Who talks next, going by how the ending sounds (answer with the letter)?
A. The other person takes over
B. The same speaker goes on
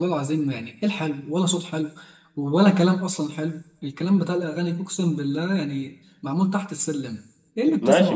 A